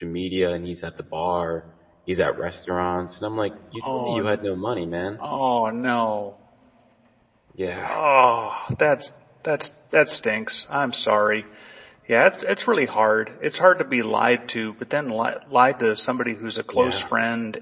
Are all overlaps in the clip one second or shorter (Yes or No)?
Yes